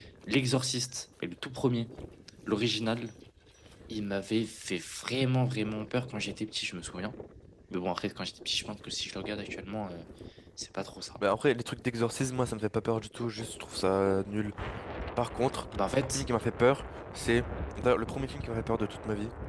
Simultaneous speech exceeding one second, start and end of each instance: none

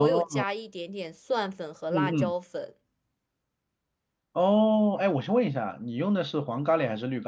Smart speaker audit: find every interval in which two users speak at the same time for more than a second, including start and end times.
none

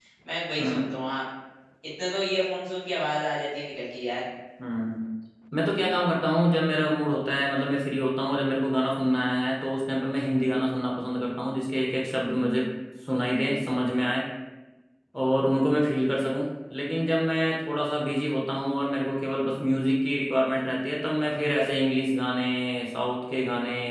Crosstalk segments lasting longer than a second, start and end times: none

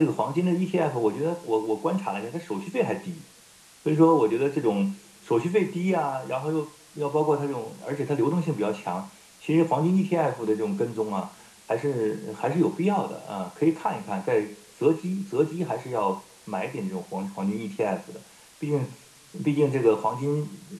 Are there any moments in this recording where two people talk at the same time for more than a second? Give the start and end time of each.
none

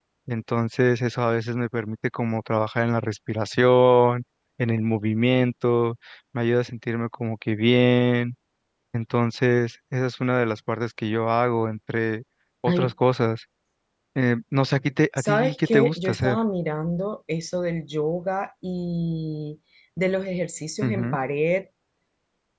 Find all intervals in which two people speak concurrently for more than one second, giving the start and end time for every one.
15.2-16.4

